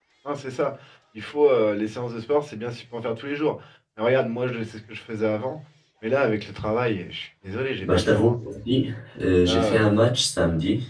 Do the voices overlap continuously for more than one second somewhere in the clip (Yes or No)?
No